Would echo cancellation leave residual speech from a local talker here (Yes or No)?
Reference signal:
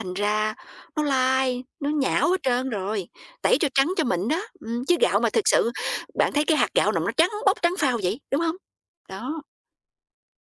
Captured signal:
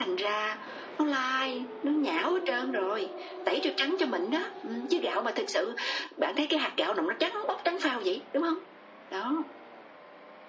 No